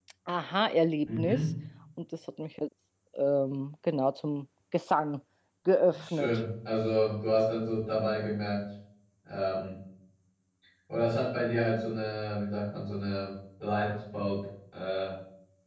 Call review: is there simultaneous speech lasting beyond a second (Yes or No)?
No